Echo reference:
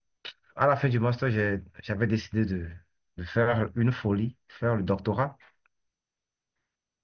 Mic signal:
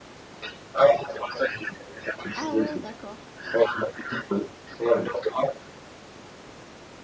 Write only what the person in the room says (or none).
Ah ouais, d'accord.